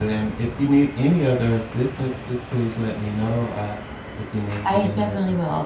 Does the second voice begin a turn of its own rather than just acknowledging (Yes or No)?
Yes